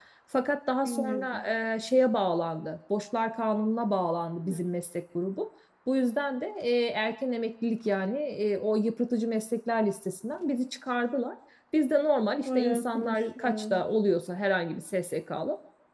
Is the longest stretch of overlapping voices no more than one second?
No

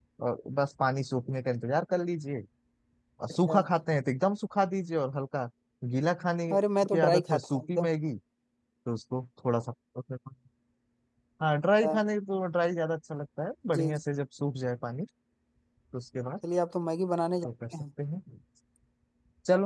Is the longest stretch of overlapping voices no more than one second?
No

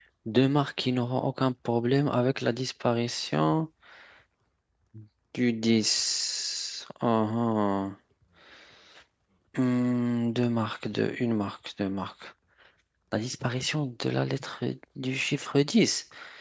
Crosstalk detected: No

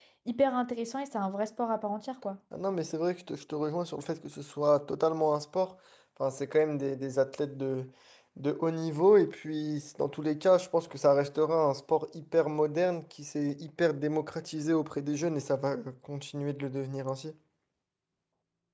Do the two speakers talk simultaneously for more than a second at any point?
No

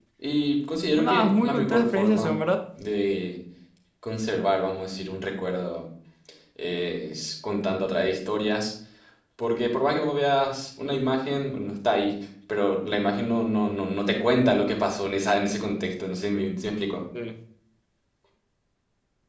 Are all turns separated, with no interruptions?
No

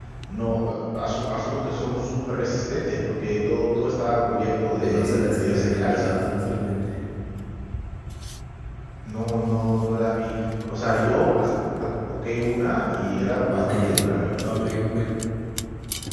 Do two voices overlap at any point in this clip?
Yes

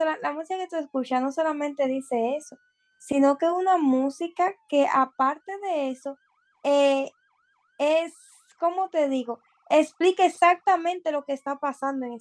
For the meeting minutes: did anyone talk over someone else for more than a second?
No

